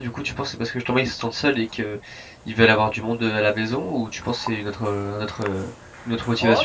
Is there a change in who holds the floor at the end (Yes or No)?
Yes